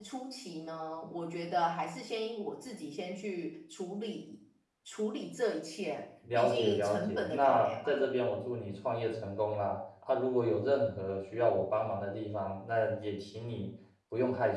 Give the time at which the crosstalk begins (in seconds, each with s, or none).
6.2 s